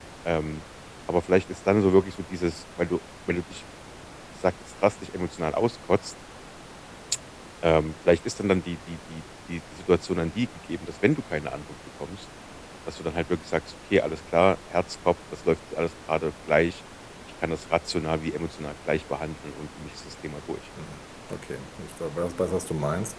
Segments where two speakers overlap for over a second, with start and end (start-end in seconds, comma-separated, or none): none